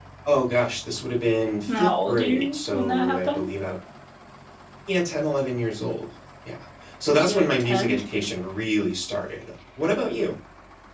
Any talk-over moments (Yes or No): Yes